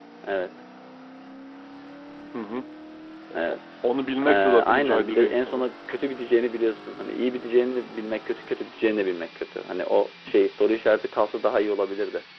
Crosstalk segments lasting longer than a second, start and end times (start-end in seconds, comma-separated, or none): 4.2-5.6